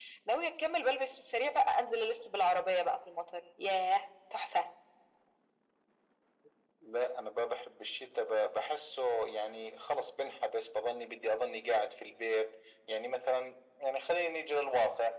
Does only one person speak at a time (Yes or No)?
Yes